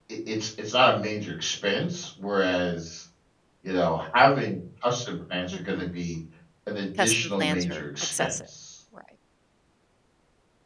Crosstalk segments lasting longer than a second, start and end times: 7.0-8.3

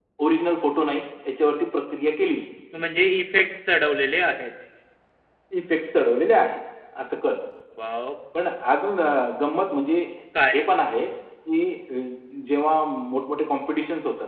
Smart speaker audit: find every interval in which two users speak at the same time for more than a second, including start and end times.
none

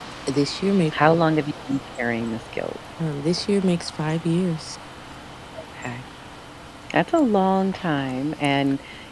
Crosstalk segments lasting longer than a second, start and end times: none

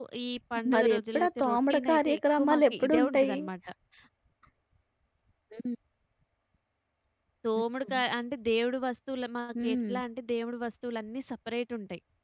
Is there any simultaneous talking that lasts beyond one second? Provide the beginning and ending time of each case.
0.7-3.4

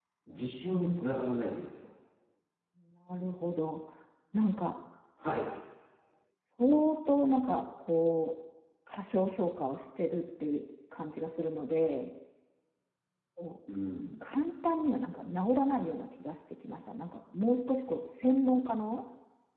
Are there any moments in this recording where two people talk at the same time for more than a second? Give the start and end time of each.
none

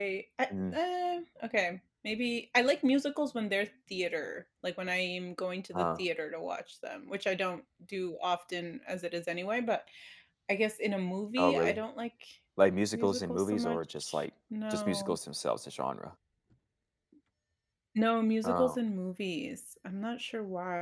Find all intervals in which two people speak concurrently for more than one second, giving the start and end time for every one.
12.9-14.2

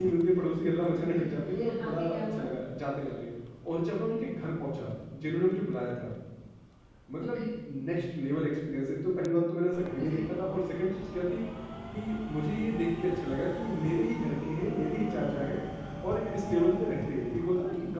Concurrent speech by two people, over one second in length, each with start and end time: 1.1-2.5

